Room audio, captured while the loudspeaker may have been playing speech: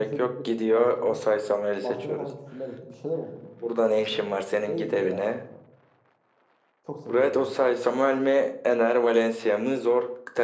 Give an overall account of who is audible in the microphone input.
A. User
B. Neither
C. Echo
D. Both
D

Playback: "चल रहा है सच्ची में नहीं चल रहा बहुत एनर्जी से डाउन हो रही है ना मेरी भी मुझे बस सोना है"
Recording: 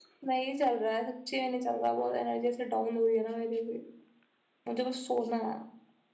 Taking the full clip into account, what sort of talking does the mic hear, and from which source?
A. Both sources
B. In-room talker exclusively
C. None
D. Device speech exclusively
D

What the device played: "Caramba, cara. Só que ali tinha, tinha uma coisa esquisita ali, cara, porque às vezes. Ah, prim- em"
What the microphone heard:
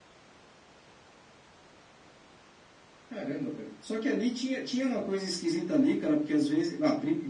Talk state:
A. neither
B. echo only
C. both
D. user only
B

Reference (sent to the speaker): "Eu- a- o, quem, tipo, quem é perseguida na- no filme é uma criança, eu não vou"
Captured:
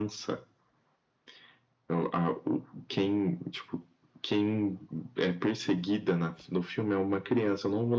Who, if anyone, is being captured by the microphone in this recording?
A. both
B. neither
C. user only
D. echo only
D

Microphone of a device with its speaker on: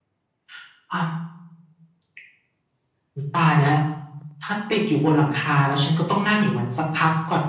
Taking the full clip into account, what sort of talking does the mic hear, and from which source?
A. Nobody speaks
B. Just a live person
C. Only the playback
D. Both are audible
C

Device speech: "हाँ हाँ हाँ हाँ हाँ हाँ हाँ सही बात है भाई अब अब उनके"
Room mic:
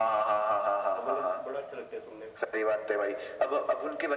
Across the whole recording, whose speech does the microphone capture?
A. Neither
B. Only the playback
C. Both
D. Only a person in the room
C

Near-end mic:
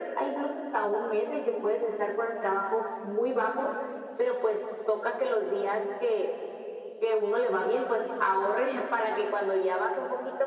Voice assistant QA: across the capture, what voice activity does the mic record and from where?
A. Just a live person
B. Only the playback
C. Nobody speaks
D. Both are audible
B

